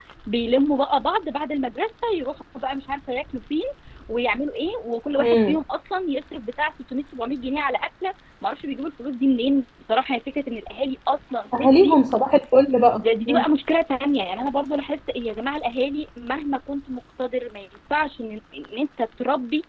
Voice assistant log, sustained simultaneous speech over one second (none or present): none